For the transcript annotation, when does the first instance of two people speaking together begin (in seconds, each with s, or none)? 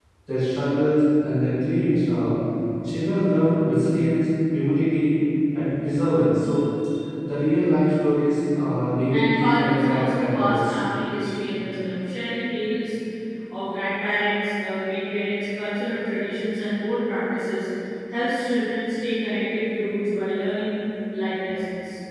9.1 s